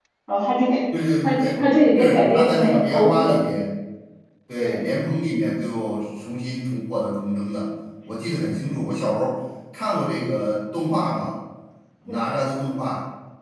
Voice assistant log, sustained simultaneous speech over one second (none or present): present